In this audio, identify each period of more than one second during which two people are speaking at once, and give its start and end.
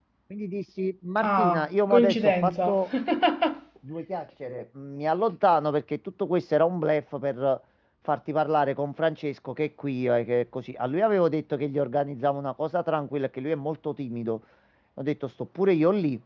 1.2-2.7

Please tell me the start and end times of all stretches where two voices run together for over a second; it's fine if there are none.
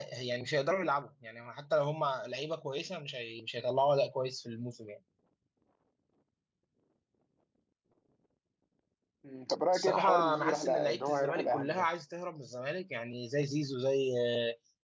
9.7-11.8

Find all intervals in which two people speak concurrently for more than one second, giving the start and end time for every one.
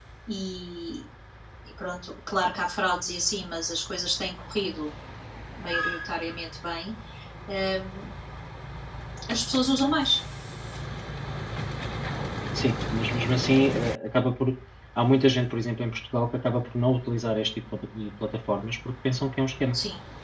none

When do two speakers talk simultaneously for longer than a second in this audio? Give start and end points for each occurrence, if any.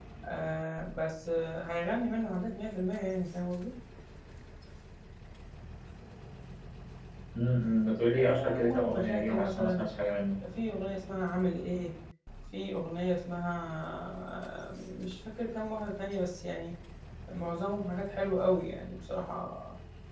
8.2-9.8

